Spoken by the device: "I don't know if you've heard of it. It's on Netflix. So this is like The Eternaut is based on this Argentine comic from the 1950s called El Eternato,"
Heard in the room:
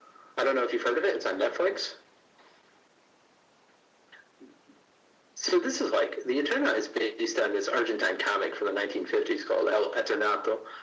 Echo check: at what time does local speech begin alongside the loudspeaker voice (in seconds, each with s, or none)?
none